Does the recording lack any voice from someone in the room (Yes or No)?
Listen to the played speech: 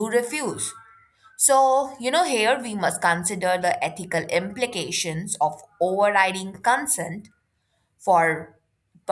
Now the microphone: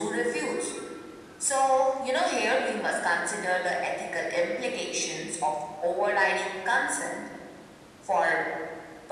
Yes